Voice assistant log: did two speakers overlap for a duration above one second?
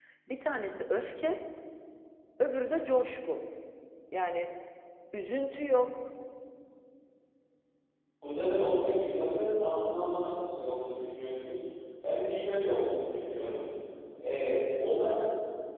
No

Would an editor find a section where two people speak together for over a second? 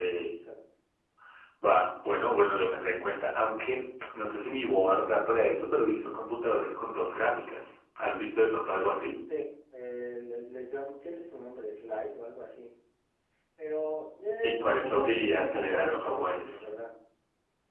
Yes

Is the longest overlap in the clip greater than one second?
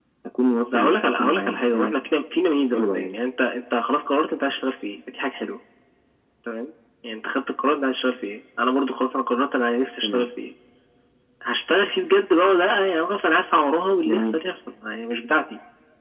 Yes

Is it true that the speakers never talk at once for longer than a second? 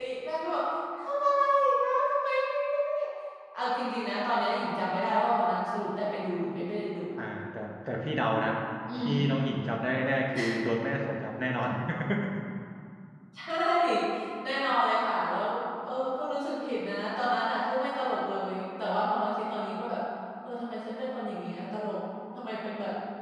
Yes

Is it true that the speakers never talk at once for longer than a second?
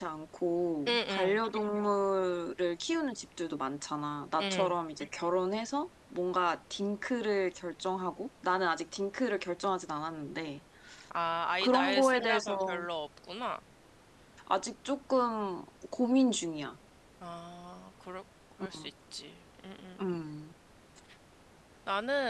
No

